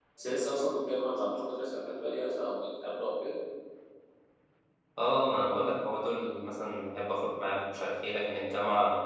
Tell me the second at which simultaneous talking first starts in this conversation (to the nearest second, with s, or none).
none